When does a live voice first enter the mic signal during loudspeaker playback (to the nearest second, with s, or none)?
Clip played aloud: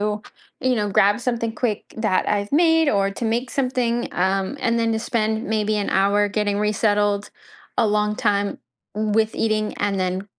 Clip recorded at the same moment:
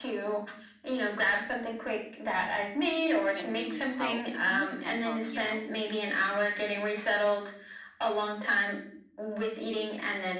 3 s